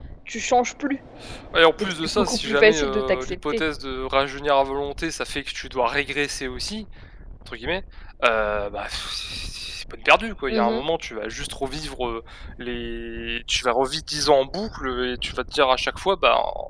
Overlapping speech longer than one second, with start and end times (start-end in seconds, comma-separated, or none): 1.8-3.6